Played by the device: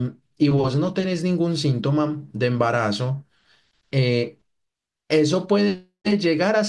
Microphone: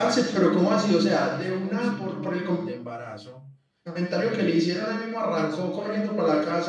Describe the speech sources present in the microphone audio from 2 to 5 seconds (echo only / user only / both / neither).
both